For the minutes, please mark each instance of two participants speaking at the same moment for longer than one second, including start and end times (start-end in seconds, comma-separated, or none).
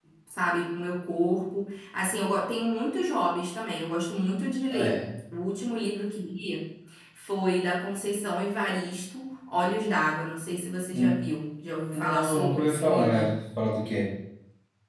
11.9-13.3